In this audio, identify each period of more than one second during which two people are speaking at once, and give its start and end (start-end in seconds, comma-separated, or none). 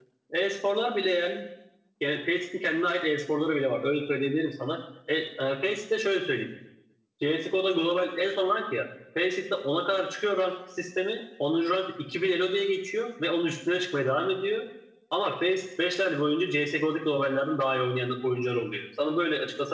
none